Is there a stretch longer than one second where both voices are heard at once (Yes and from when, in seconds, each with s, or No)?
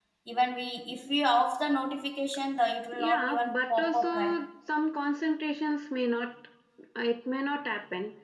Yes, from 2.9 s